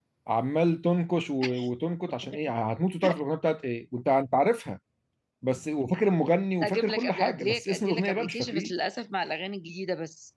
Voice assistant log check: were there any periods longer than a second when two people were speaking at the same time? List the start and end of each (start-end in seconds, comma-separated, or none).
6.6-8.7